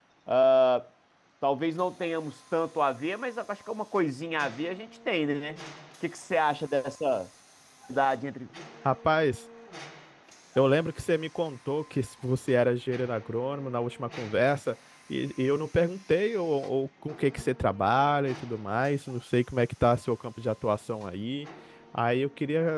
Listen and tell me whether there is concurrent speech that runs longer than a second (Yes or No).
No